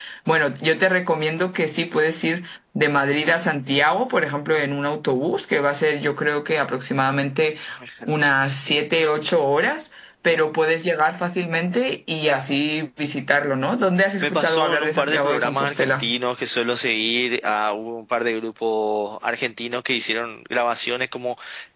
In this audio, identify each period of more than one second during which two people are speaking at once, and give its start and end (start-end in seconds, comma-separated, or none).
14.2-16.1